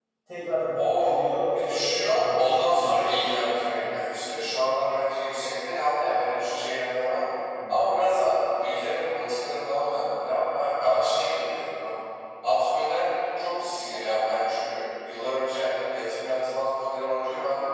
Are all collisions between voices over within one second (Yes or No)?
No